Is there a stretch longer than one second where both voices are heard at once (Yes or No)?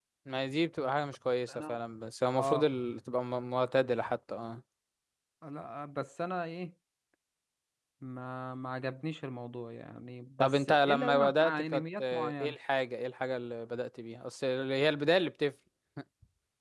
Yes